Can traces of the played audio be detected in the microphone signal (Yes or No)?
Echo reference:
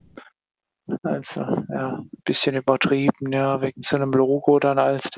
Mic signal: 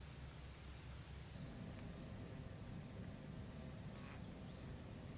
No